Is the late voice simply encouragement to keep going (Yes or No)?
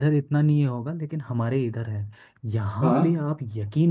Yes